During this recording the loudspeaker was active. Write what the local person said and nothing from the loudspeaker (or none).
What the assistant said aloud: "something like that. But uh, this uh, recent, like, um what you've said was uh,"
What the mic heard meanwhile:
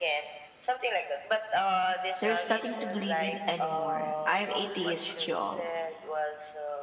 There's nothing to believe in anymore. I'm atheist, y'all.